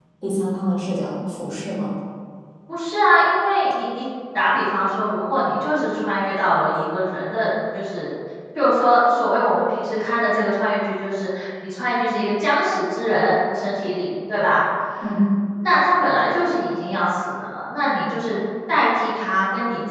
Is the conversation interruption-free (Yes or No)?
Yes